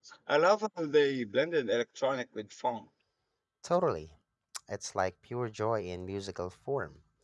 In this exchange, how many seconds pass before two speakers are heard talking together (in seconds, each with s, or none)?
none